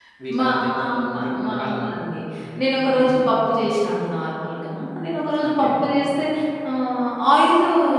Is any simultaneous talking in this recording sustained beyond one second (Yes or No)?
Yes